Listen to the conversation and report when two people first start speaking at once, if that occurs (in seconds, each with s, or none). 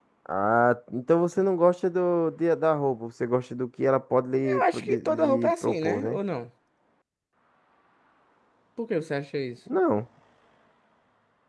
4.4 s